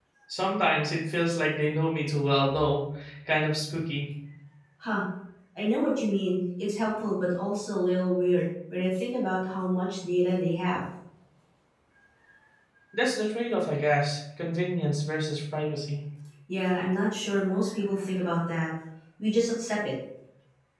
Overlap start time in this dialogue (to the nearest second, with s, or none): none